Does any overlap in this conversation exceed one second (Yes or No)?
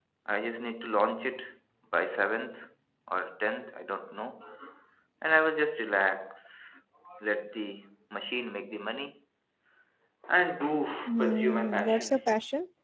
Yes